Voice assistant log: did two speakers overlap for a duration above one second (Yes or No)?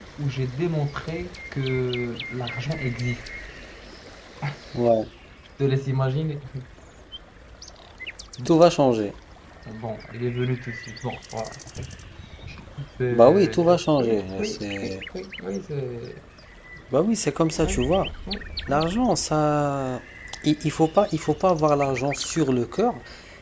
Yes